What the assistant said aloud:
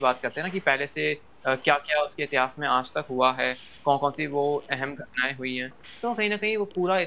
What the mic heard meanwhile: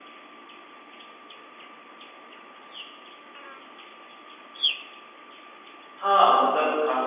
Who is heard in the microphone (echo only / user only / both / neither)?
user only